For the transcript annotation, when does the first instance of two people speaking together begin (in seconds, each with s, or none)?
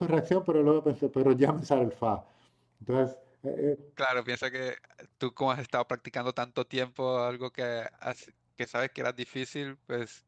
none